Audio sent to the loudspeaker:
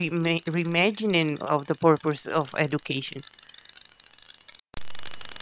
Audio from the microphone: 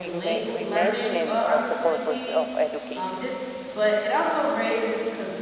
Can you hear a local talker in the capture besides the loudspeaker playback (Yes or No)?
Yes